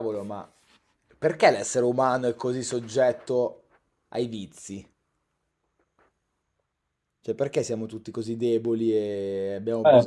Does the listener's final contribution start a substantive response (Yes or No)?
Yes